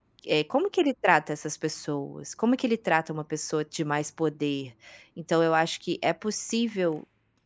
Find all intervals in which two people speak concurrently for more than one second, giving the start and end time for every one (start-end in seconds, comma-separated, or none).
none